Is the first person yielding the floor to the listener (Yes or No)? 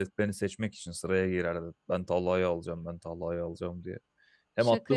No